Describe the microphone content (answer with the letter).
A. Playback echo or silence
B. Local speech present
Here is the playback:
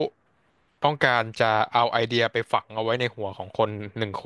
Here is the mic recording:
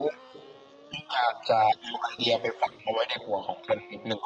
A